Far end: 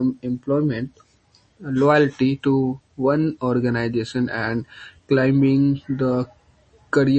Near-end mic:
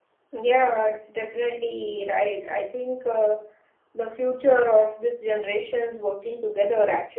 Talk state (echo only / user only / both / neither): user only